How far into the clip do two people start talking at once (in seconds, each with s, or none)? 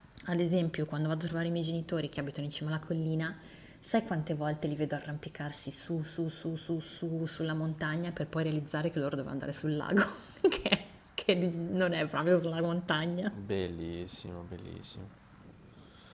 none